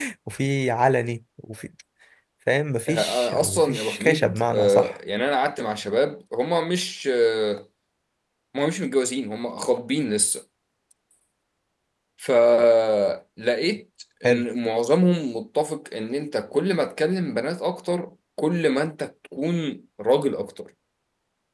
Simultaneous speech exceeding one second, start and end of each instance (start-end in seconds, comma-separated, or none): 2.9-4.9